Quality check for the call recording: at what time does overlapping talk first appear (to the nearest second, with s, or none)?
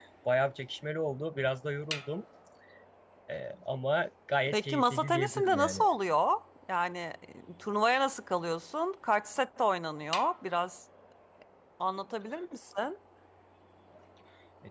5 s